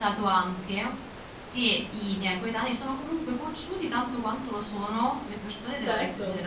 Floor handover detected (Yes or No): Yes